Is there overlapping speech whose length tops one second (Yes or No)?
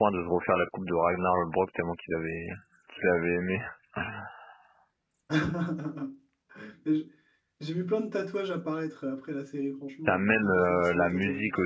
Yes